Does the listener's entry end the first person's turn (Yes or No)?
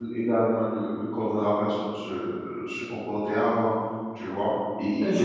Yes